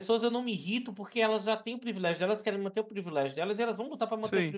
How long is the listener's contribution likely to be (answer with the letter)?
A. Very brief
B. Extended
B